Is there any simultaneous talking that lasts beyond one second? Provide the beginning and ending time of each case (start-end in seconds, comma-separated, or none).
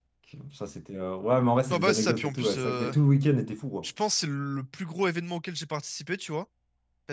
1.7-2.9